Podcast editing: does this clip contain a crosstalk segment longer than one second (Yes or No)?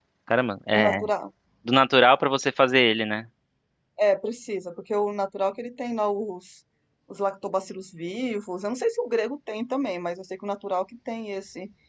No